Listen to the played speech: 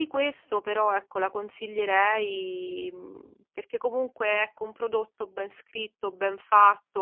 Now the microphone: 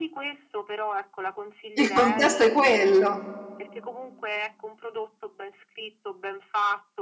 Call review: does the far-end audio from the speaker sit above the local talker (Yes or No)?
No